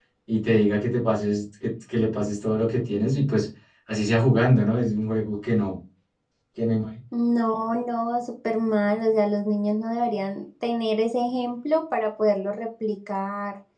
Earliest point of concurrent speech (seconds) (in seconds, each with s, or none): none